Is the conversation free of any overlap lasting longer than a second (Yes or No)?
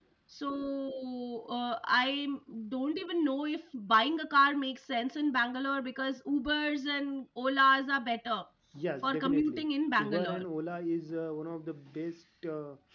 No